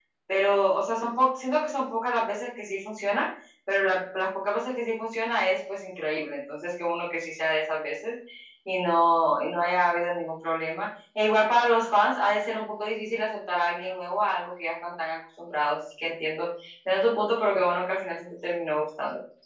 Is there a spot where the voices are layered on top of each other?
No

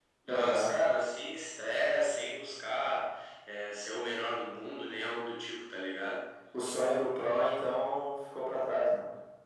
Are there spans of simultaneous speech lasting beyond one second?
No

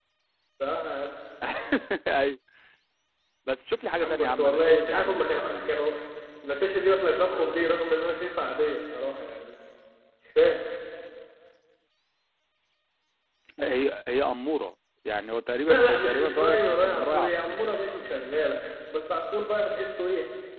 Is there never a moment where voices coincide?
No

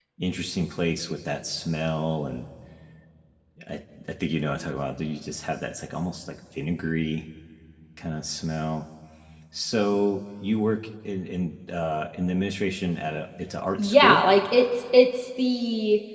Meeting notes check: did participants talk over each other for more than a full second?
No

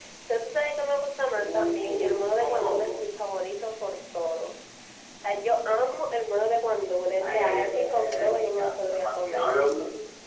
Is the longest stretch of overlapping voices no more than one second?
No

